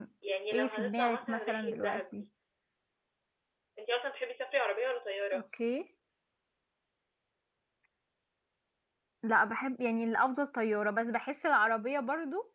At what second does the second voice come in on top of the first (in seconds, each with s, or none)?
0.5 s